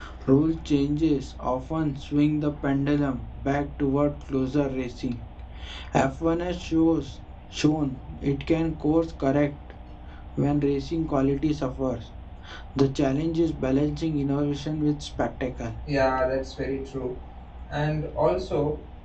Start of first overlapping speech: none

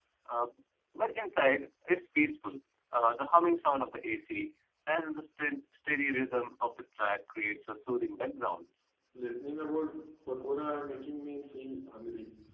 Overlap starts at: none

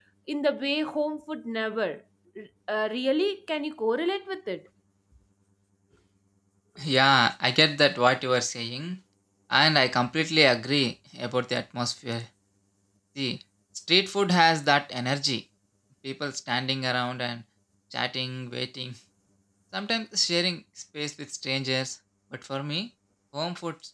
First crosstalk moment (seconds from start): none

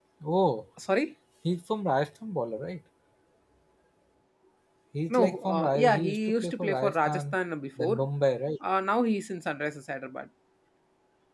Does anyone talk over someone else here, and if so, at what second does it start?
5.2 s

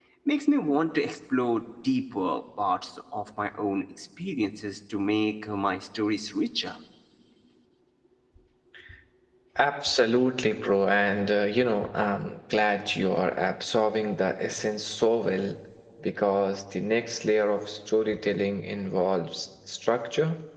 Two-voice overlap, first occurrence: none

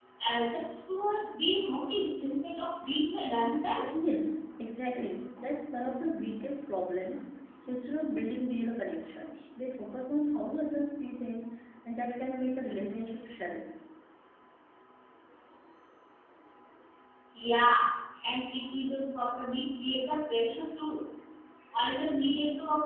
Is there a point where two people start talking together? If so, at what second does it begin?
none

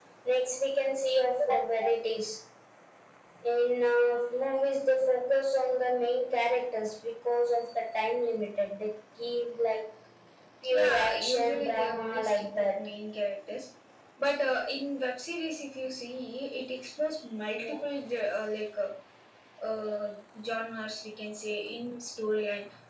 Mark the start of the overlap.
10.8 s

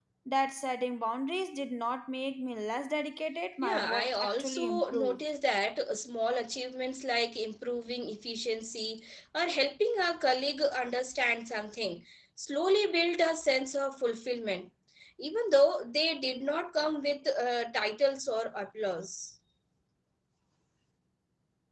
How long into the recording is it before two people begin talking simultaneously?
3.6 s

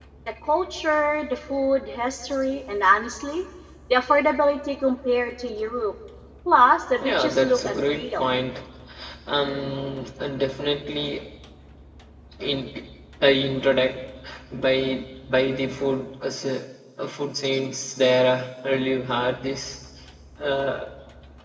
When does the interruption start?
7.0 s

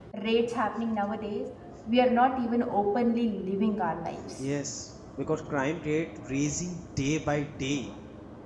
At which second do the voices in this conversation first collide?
none

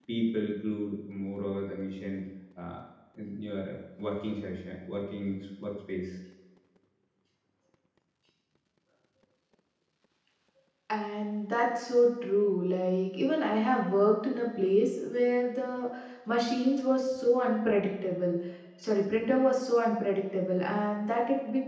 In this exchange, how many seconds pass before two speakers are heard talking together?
none

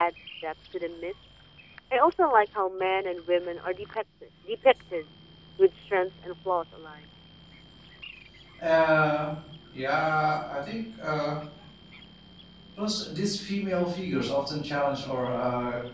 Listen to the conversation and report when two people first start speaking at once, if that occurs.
none

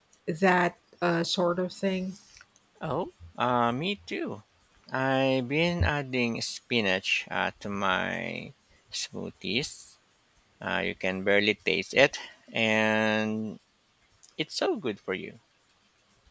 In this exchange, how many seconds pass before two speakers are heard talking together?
none

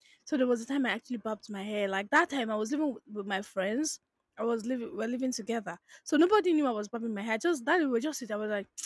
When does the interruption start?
none

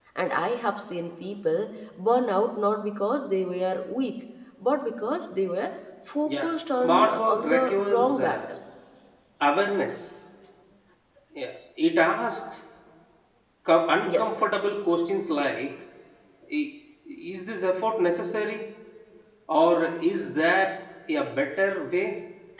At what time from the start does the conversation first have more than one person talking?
6.2 s

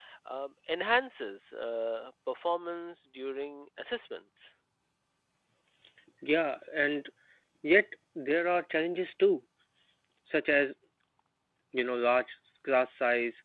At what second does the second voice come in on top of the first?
none

